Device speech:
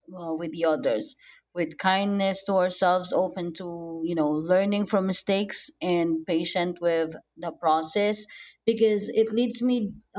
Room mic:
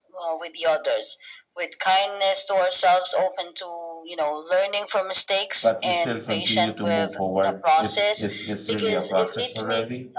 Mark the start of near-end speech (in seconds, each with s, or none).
5.6 s